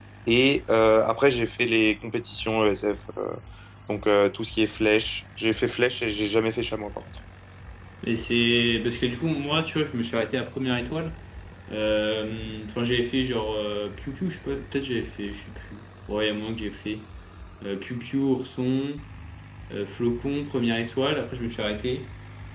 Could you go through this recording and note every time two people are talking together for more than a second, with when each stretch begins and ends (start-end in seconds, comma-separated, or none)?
none